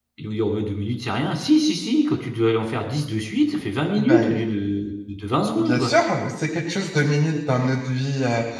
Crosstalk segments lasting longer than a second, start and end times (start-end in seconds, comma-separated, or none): none